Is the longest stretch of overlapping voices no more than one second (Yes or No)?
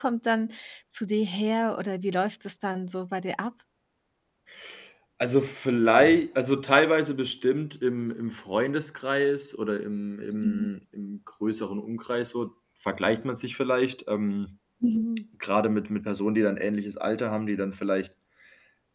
Yes